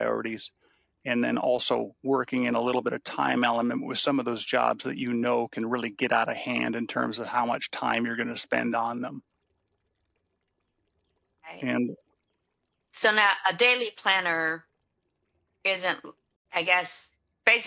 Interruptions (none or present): none